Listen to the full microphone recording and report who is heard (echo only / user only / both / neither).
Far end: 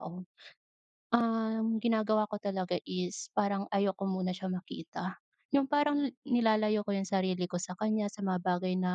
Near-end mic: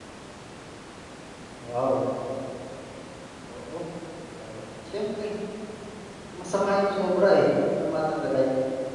user only